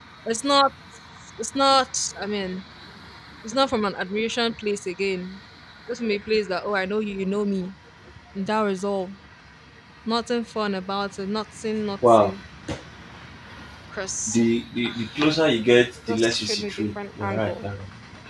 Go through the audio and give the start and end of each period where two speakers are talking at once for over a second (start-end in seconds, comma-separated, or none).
16.1-17.6